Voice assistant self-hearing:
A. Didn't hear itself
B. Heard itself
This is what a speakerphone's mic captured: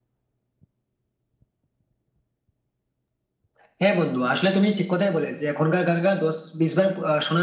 B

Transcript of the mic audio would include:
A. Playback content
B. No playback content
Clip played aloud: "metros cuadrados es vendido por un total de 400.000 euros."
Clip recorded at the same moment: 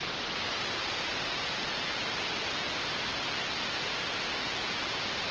B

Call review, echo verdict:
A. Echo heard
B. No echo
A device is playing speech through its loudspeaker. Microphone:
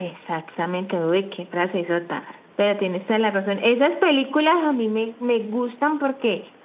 A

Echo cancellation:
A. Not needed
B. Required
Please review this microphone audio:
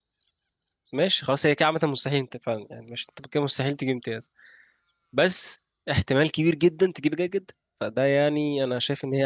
A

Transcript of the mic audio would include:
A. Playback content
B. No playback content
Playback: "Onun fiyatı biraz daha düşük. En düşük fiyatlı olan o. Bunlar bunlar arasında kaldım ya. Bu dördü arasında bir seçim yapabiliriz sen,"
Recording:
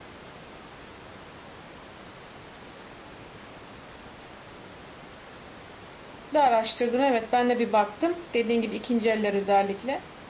B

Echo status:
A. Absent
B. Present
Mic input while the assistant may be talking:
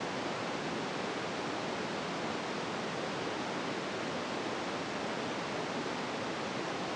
A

